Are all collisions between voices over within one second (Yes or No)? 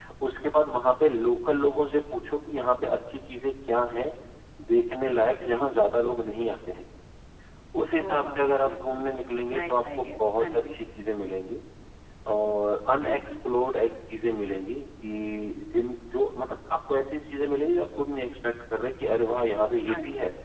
No